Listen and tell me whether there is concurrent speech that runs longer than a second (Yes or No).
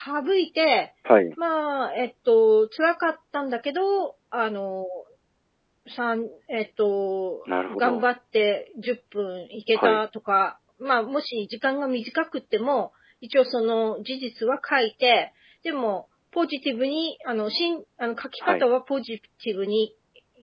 No